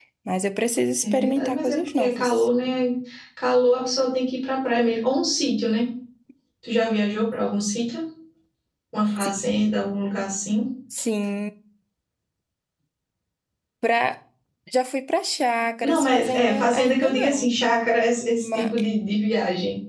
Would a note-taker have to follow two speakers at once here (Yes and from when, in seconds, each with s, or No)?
Yes, from 1.0 s